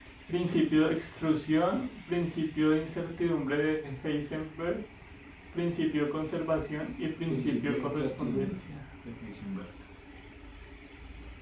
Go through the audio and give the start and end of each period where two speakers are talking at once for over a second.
7.3-8.6

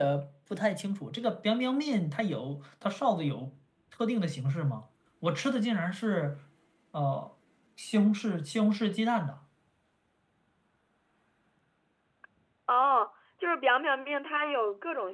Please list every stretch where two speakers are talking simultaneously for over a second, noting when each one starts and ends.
none

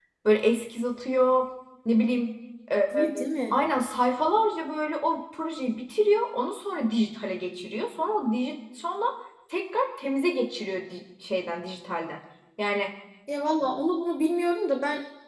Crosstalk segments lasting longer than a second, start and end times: none

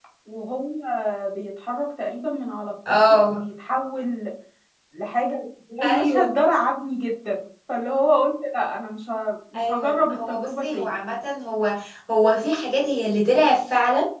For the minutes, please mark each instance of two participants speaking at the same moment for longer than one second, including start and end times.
9.7-10.9

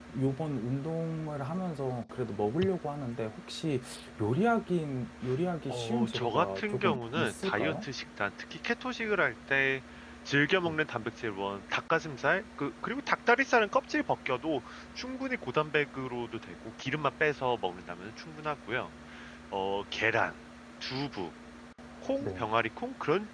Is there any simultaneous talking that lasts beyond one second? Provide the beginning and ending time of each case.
5.7-7.9

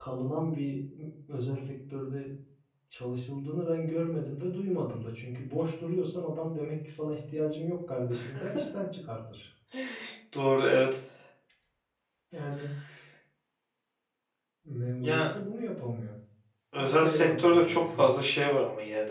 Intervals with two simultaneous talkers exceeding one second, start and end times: 16.8-18.1

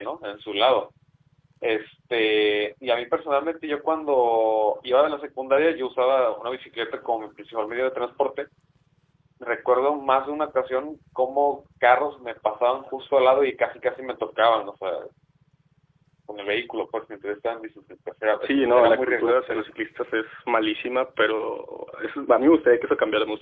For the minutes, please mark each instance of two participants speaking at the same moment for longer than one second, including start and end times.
18.4-19.7

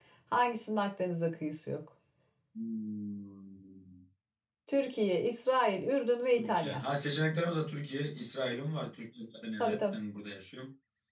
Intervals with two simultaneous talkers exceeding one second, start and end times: none

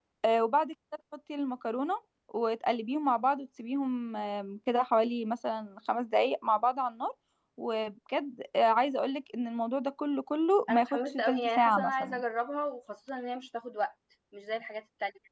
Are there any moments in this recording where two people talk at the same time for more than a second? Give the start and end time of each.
10.7-12.2

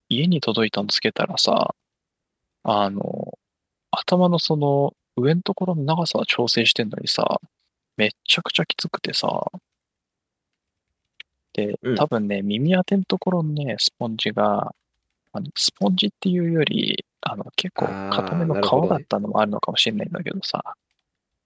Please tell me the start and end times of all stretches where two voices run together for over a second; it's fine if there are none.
17.8-19.0

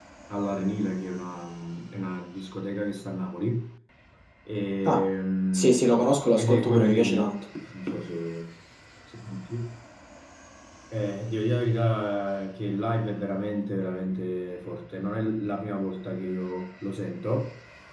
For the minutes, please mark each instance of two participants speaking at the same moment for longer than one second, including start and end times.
5.5-7.3

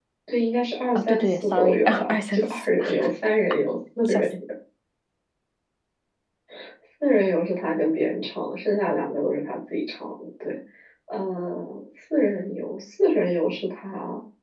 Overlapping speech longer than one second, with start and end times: 1.0-2.7

